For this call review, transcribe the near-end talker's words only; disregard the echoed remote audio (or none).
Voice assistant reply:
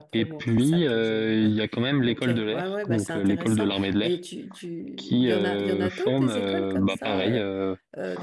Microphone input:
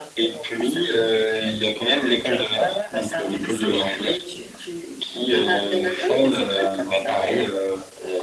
none